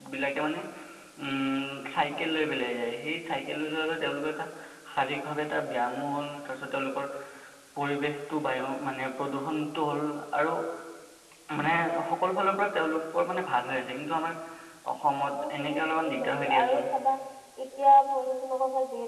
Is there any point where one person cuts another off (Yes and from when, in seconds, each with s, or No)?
Yes, from 15.3 s